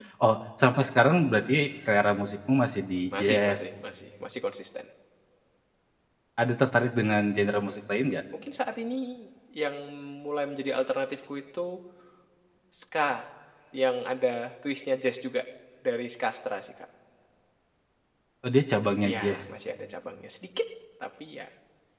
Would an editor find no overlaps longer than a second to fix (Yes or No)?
Yes